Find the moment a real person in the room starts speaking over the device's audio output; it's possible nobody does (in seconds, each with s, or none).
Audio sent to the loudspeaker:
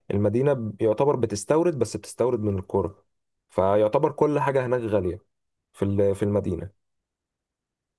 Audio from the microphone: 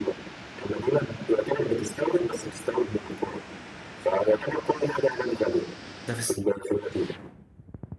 6.1 s